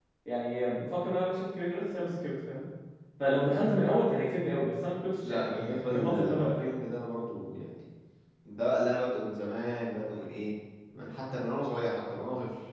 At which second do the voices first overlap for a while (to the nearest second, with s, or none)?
5 s